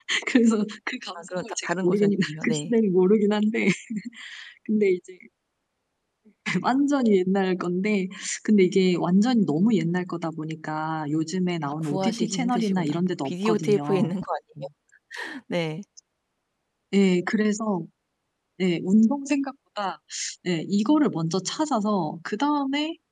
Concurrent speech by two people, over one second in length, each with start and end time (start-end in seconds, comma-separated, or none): 1.4-2.7, 11.8-14.1